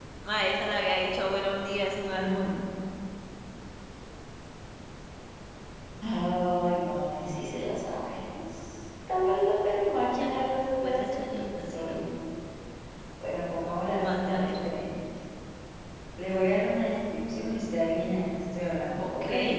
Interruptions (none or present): present